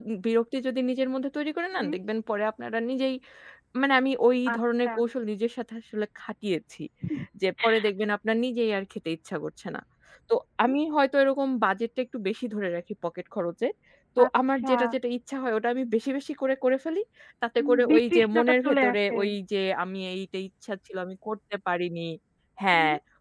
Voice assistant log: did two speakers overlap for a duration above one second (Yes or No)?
Yes